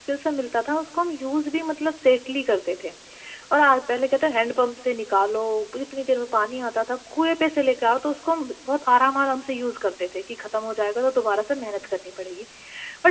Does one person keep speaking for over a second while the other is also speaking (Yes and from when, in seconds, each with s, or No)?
No